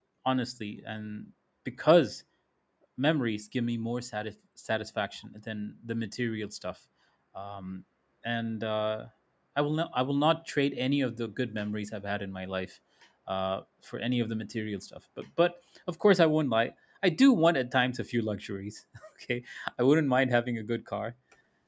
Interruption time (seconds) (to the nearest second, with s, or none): none